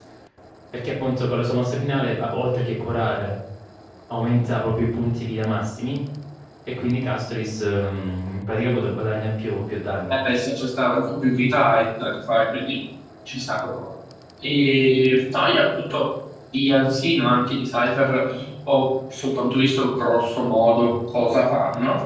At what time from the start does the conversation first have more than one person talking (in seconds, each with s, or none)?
none